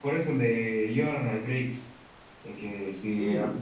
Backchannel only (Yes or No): Yes